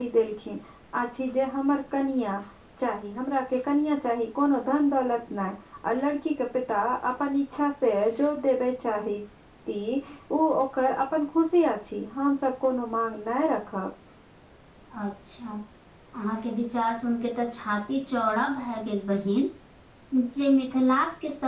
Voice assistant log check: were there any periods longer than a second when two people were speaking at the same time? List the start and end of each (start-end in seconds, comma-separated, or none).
none